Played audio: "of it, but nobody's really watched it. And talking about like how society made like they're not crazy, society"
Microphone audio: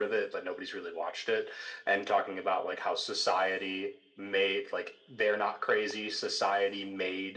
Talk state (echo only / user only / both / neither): echo only